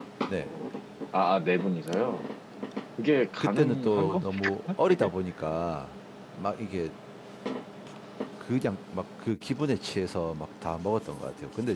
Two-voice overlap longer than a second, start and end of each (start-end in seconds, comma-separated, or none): 3.4-5.1